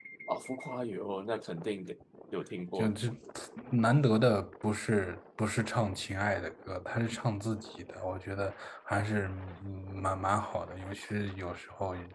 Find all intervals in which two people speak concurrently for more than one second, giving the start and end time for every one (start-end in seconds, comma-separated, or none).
none